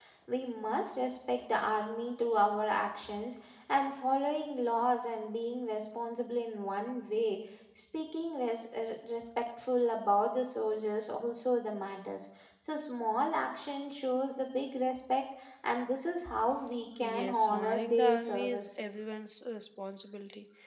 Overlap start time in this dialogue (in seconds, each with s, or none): 17.0 s